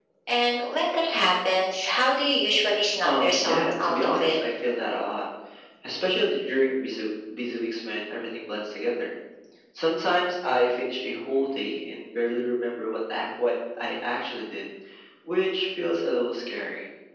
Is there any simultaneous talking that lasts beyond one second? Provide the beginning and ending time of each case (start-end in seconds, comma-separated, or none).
3.0-4.4